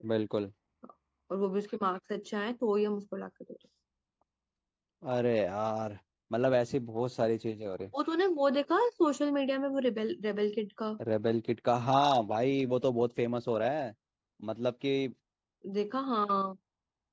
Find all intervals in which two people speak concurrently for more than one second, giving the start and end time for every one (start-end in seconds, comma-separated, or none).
none